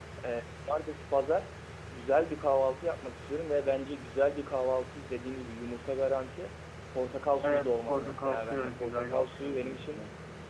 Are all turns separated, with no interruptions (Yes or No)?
No